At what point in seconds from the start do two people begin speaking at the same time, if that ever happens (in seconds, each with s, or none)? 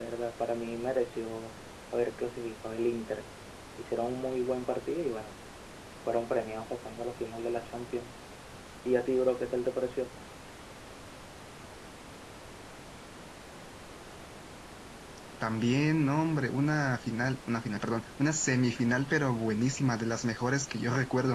none